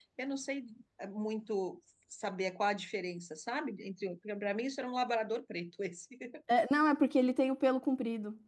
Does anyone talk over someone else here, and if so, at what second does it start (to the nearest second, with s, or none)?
none